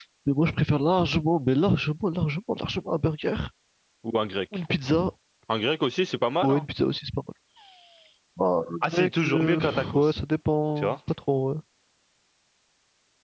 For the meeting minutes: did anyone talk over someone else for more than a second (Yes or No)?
Yes